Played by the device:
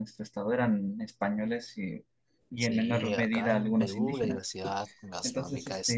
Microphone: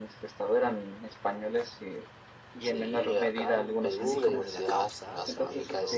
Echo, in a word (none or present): present